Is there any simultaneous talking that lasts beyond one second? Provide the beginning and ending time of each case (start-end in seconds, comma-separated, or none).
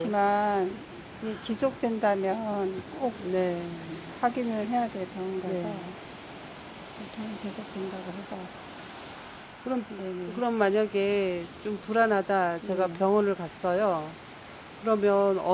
none